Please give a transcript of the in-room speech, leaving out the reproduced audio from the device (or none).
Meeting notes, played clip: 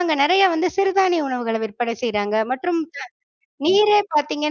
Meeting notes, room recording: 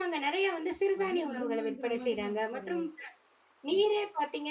அவ்ளோ வருமாங்கிற மாதிரி நமக்கு ஒரு